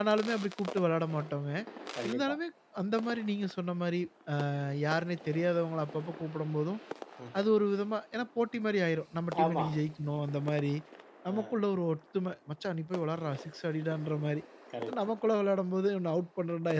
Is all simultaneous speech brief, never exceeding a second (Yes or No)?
Yes